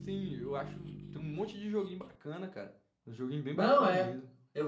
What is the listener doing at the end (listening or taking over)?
taking over